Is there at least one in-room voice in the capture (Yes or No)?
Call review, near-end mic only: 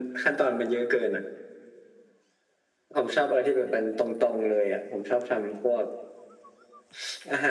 No